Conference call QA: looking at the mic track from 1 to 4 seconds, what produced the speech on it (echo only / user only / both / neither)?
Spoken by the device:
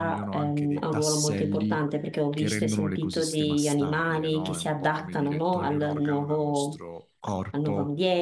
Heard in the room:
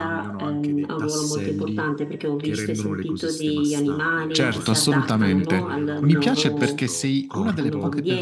echo only